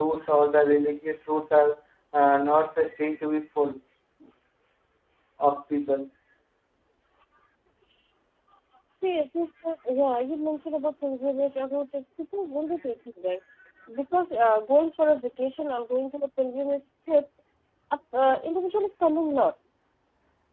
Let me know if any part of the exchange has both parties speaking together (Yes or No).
No